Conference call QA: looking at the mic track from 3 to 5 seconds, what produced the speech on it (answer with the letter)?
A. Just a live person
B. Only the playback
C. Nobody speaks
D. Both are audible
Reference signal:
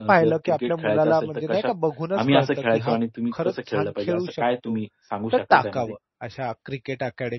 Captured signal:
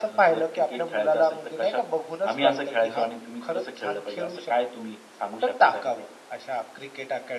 B